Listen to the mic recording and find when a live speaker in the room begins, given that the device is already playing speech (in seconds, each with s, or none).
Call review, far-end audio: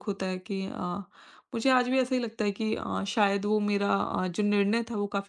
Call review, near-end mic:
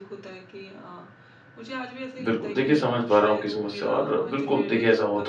2.2 s